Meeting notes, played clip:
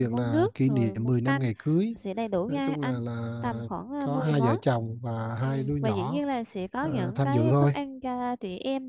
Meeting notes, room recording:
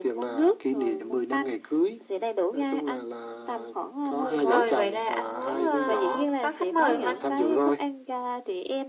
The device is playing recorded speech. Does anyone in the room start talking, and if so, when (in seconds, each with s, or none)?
4.5 s